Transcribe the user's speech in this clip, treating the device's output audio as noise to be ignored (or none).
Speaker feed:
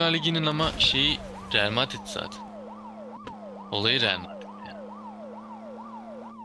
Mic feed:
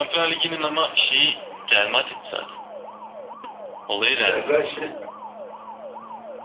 Ya sen şey